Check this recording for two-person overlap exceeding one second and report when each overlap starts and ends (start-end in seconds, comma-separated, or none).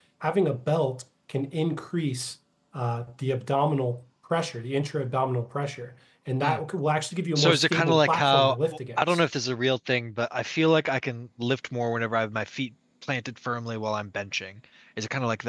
7.3-8.6